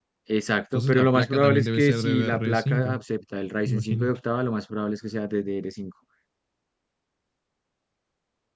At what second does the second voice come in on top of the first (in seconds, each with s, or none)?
0.7 s